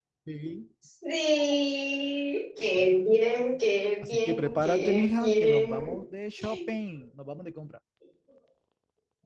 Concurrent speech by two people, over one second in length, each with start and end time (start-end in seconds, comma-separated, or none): 4.0-6.0